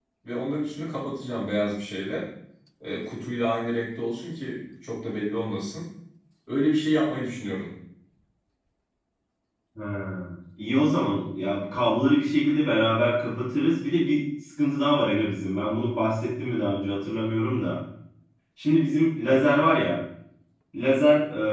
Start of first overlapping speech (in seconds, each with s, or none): none